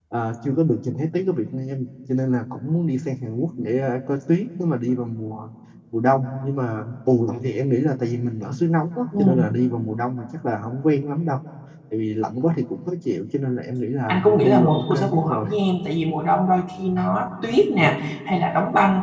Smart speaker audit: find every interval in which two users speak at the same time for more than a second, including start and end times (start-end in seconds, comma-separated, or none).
14.1-15.4